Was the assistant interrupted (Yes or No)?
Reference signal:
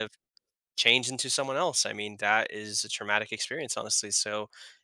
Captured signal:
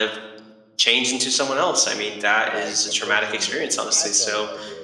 Yes